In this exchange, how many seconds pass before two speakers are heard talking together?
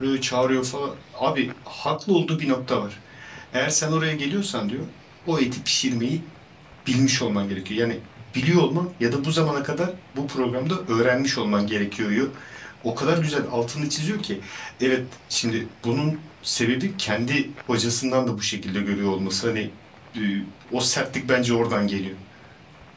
none

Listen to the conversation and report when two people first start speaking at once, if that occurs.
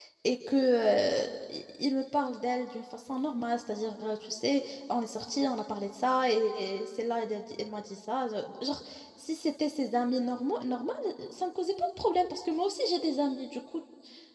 none

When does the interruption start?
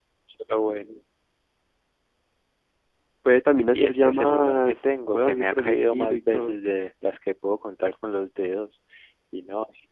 3.7 s

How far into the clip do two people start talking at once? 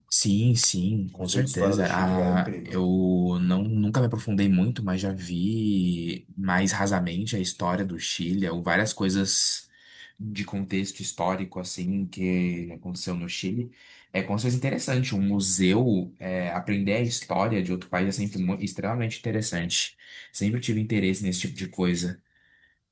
1.1 s

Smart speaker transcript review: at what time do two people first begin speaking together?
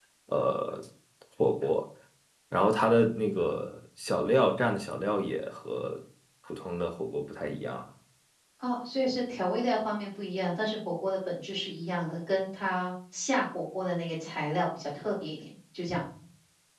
none

